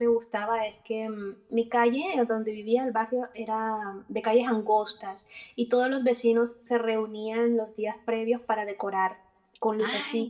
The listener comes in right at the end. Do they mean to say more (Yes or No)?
No